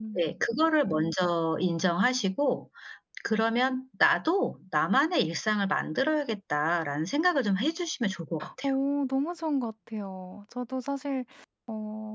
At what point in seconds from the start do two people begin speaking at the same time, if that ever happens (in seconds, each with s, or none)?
none